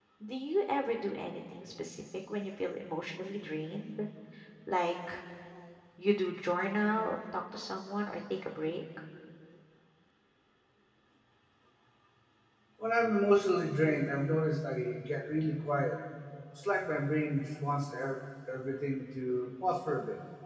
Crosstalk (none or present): none